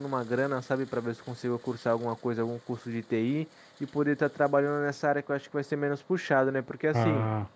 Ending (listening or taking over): listening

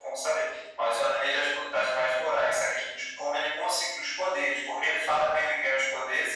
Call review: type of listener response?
listening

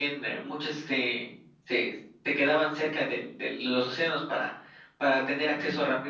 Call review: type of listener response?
listening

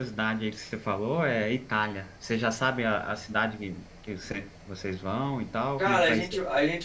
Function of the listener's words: taking over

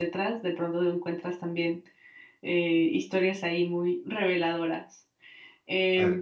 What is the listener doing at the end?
listening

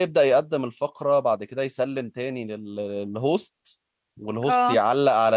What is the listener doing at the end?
listening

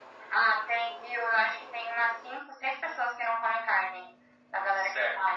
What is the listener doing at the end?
taking over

